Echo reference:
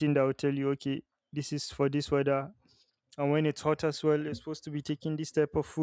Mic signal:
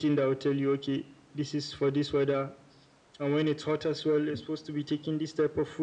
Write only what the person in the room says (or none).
none